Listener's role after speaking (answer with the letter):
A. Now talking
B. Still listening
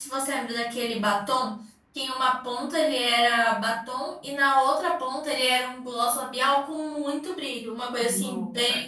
A